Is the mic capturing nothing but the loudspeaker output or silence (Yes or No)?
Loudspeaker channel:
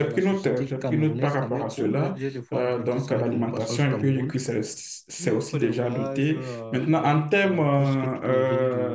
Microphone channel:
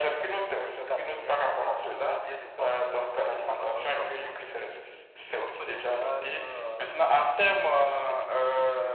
Yes